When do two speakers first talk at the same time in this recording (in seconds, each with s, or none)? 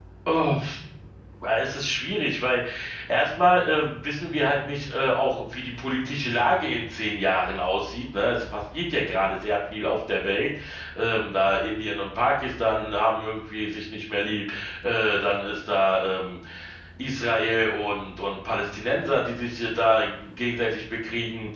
none